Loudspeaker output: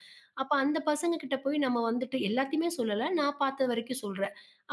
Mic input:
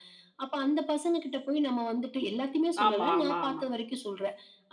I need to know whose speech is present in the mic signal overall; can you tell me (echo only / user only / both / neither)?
both